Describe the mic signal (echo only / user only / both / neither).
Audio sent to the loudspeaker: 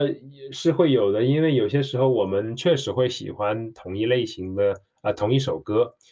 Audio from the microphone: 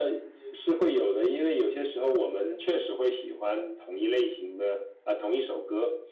echo only